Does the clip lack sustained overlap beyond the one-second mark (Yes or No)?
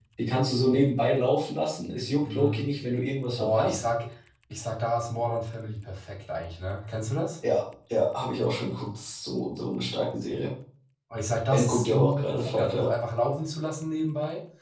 No